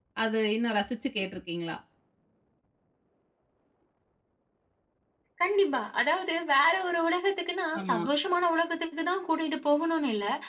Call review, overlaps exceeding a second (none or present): none